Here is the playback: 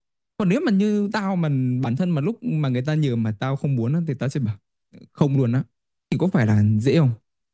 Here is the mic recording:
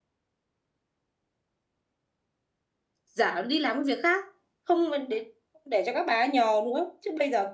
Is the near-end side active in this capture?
Yes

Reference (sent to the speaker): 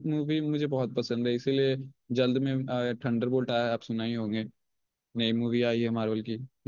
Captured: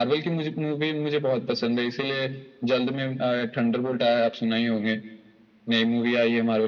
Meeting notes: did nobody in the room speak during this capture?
Yes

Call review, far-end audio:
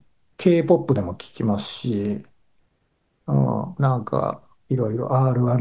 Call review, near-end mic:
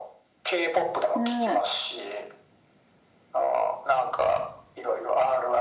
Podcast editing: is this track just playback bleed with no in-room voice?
No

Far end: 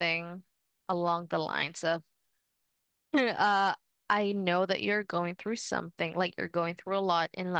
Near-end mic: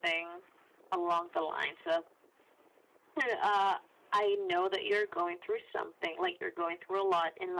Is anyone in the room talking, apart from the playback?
No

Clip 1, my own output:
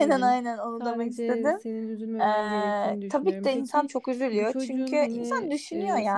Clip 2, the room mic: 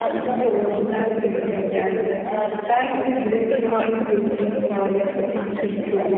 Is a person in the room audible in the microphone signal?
Yes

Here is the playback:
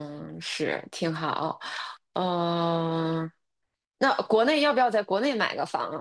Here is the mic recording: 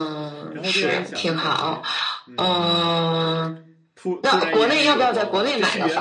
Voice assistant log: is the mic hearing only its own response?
No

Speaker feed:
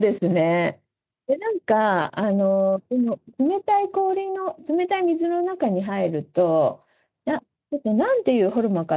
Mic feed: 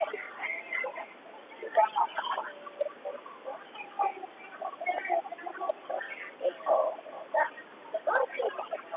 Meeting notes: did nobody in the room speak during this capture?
Yes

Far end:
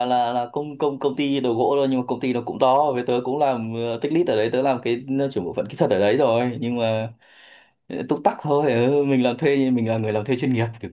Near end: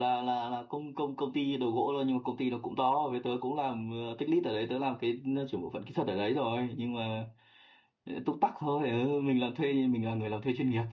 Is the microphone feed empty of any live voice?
Yes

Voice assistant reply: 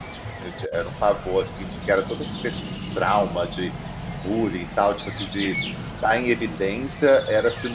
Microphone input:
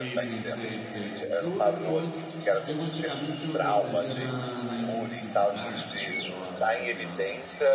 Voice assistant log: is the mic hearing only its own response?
No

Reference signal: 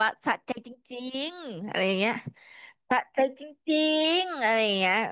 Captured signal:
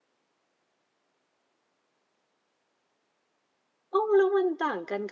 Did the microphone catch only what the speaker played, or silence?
No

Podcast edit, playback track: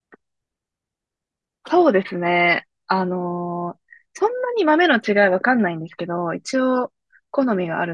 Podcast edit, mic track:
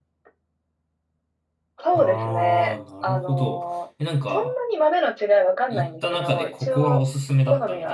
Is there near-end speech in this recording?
Yes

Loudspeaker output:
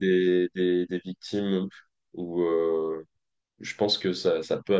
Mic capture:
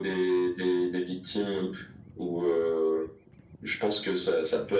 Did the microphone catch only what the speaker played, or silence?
Yes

